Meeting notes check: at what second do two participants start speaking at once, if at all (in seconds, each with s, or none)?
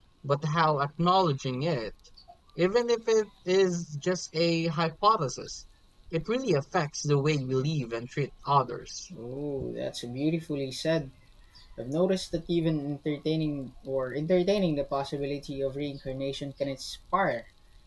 none